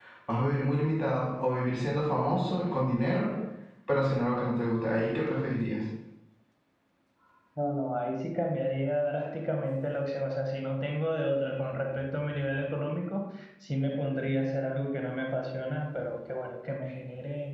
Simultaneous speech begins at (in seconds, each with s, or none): none